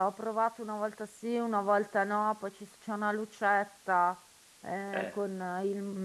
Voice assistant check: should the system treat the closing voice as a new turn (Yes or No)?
No